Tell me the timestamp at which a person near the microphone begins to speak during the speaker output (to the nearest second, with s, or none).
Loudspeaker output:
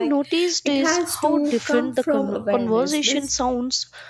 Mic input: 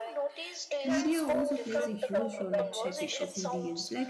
1 s